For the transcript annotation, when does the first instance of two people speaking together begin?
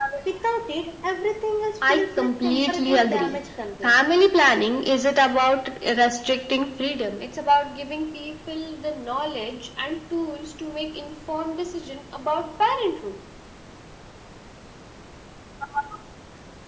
1.8 s

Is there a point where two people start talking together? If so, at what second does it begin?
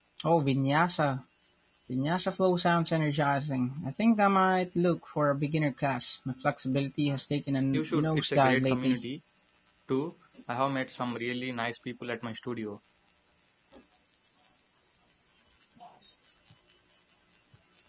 7.7 s

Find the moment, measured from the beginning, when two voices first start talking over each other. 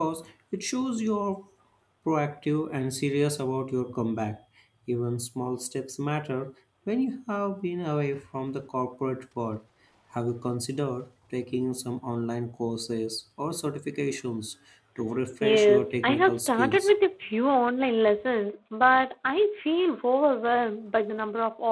15.4 s

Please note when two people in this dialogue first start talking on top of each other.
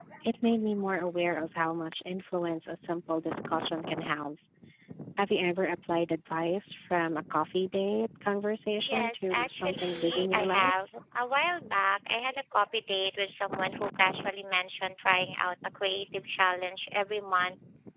8.8 s

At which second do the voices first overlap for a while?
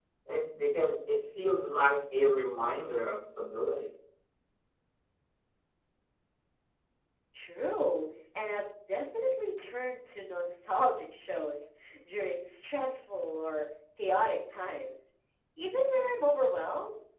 none

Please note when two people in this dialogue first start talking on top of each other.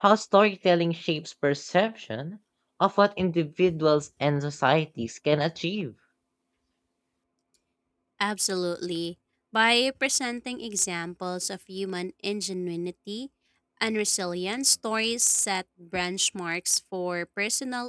none

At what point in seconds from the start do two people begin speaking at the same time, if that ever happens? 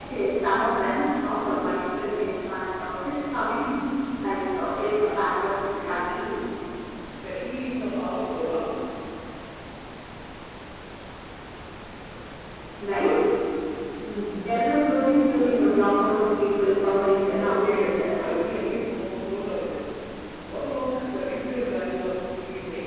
4.7 s

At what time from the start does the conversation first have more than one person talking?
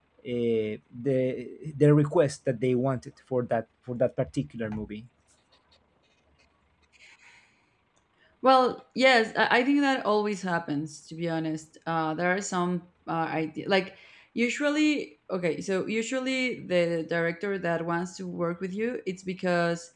none

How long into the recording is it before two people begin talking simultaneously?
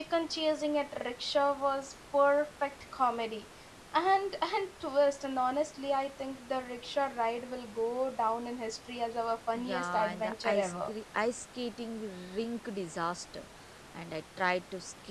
9.6 s

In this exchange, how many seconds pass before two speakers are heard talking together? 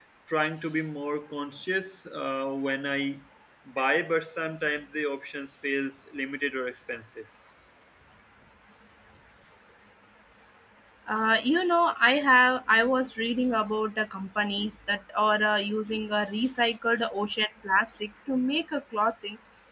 none

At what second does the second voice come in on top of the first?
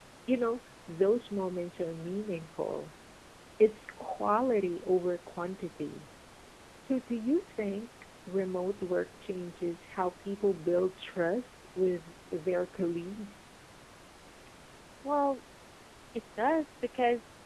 none

